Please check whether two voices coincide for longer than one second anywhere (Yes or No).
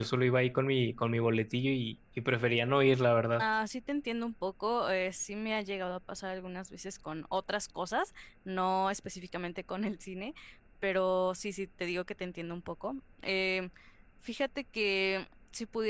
No